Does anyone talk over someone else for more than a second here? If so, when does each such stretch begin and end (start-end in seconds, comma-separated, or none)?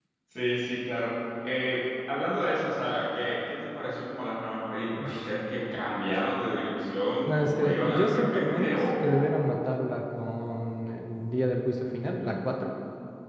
7.4-9.3